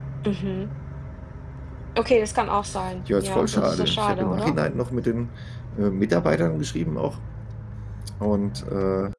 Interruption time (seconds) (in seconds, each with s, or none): 3.1 s